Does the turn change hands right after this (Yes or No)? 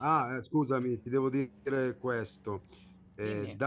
No